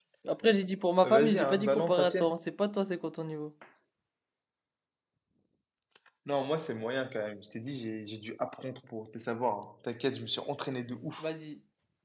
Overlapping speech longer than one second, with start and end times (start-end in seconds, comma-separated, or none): 1.0-2.4